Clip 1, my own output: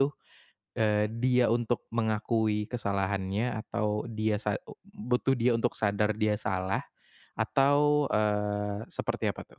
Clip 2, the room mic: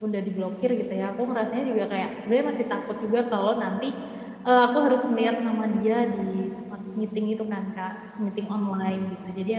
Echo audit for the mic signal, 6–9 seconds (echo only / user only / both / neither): user only